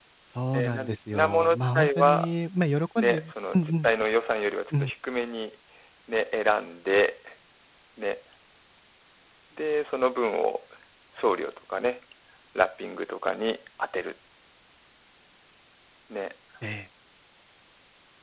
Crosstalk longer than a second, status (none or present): present